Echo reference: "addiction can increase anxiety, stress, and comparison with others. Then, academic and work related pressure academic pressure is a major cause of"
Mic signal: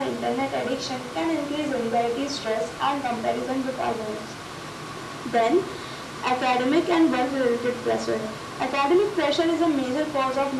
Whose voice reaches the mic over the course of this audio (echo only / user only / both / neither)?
echo only